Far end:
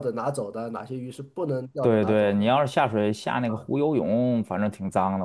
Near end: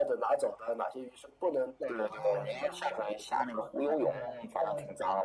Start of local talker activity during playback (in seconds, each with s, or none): 2.1 s